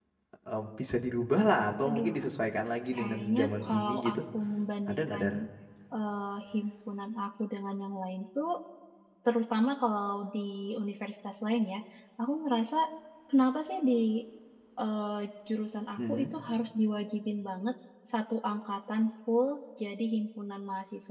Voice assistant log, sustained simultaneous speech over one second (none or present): present